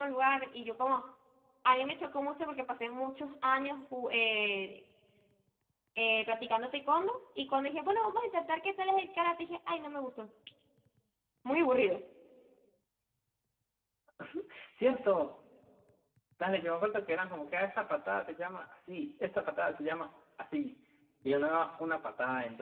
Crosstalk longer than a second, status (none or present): none